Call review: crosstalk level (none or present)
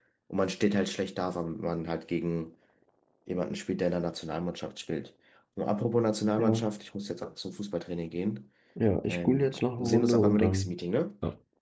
present